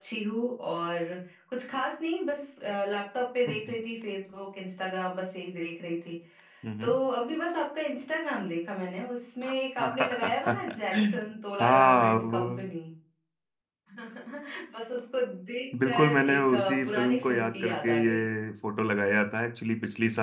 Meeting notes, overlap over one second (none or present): present